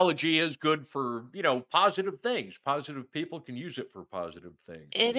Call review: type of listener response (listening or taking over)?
taking over